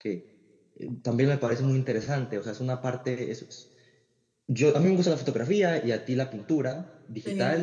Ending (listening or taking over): listening